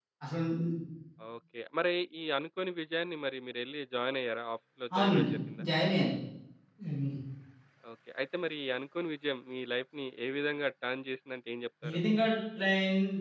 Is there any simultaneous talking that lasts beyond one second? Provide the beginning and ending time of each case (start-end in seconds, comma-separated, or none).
none